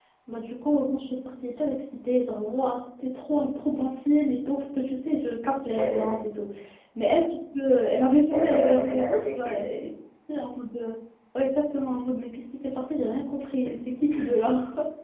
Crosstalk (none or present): present